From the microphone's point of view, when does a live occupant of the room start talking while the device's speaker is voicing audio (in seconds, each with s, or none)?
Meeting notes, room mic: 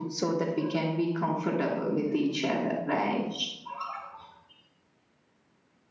none